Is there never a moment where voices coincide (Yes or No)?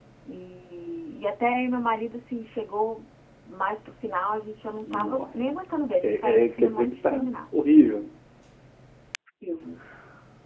No